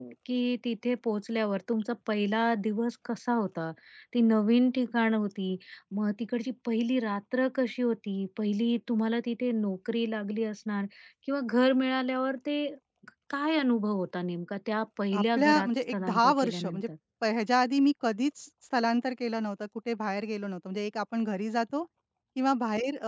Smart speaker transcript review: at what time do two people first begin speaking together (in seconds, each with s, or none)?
15.1 s